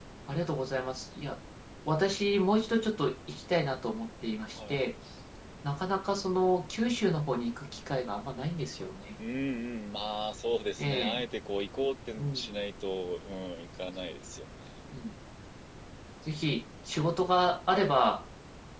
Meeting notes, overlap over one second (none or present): none